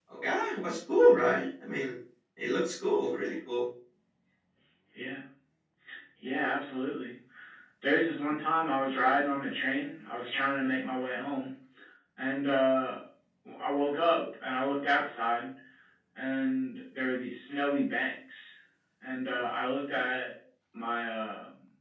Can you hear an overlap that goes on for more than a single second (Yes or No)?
No